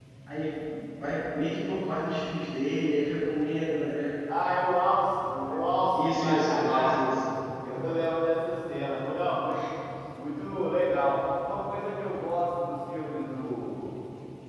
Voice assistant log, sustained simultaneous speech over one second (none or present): present